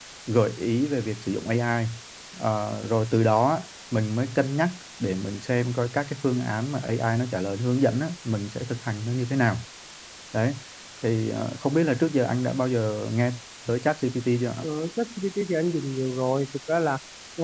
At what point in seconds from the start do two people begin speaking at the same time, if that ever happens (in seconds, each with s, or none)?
none